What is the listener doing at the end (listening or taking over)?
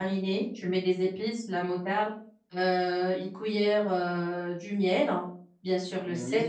listening